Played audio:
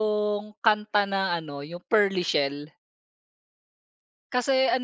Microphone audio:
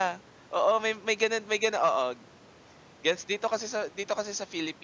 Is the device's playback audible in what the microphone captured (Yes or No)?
No